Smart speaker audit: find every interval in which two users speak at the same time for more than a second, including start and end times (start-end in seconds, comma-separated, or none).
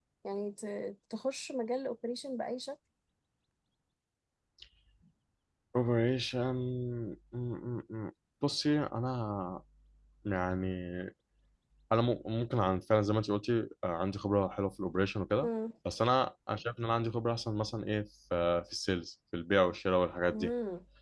none